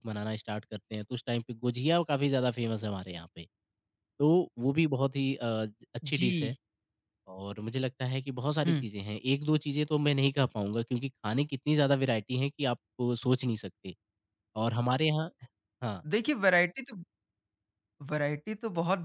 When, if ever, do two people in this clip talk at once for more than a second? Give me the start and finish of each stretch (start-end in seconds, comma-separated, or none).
none